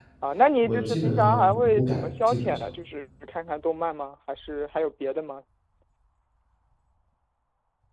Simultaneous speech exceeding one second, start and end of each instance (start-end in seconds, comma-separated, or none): 0.6-2.7